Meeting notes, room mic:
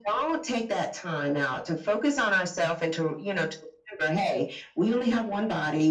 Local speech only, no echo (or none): none